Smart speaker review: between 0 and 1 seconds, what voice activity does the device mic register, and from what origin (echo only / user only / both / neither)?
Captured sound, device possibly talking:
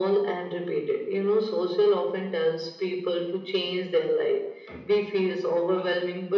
echo only